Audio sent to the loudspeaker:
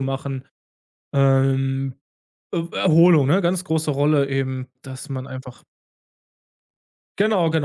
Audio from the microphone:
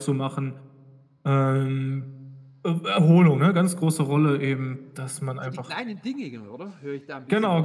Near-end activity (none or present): present